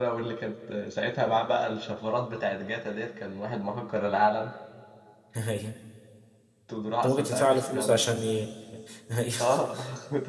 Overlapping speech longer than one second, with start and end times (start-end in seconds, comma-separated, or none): 7.0-8.3